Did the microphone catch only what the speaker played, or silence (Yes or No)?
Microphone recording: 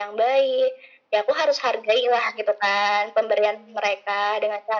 Yes